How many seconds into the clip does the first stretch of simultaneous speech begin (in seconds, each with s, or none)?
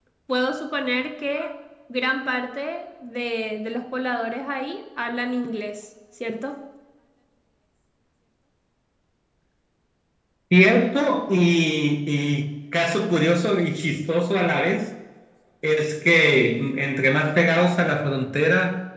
none